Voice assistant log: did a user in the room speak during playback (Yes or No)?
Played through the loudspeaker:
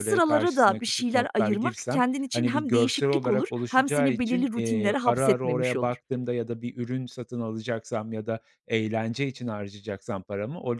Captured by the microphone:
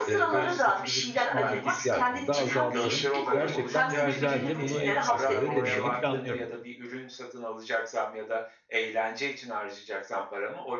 Yes